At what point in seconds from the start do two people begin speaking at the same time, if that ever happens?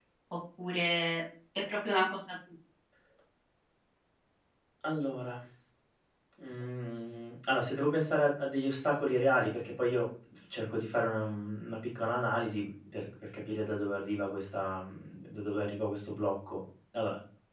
none

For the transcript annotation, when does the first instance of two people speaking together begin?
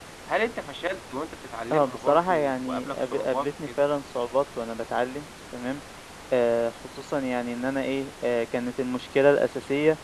1.7 s

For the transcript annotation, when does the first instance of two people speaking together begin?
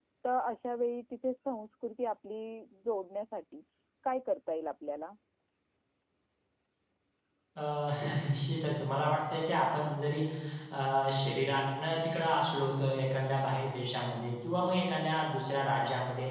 none

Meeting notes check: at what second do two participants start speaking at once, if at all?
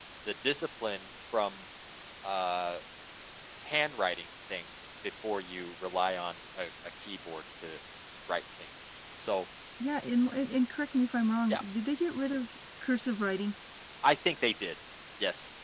none

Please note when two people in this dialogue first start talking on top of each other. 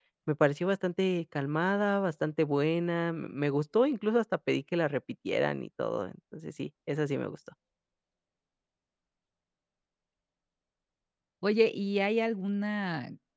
none

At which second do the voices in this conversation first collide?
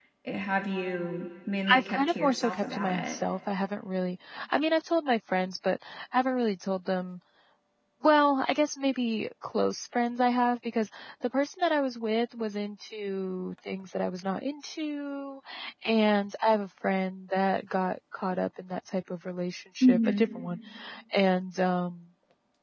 1.7 s

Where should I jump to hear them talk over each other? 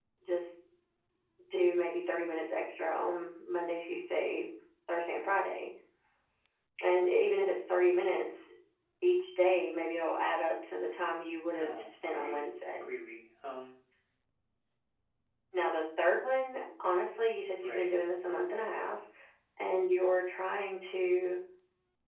11.5 s

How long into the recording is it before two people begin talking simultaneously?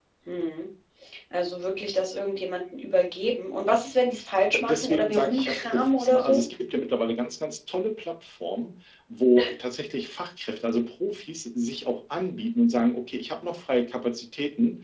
4.5 s

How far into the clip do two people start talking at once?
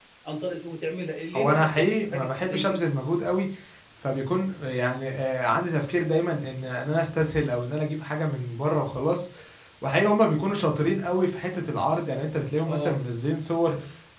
1.3 s

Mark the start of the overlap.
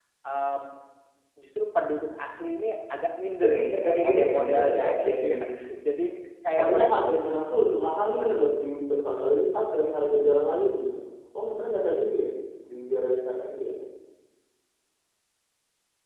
3.4 s

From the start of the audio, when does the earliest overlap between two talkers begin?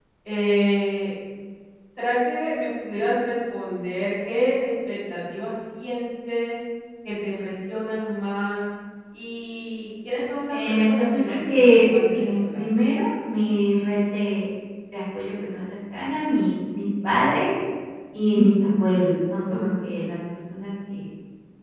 10.5 s

